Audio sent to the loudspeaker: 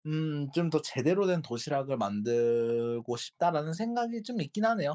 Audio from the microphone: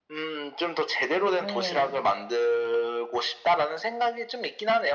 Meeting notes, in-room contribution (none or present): present